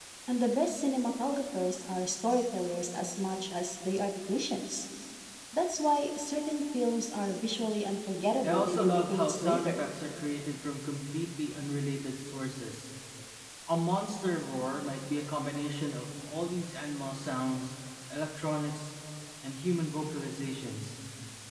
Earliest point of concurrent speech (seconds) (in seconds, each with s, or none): 8.4 s